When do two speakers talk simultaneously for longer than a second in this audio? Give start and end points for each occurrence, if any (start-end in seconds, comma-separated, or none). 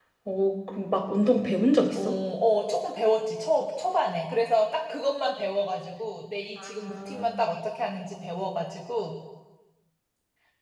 none